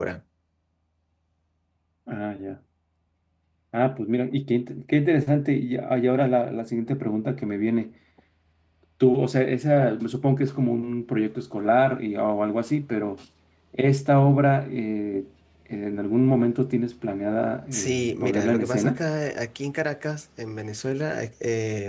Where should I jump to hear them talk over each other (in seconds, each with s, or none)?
17.7 s